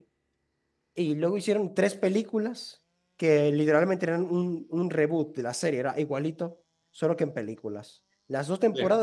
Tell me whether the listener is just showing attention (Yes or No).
Yes